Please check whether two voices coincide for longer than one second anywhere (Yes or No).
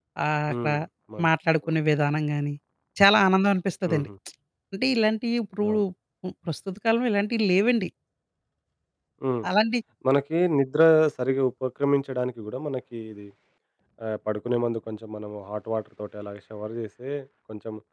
No